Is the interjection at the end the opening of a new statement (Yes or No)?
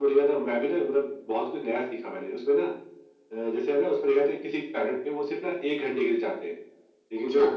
No